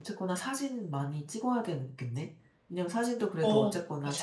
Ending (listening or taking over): listening